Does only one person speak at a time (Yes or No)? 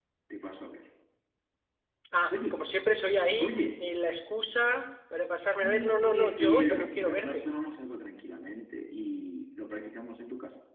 No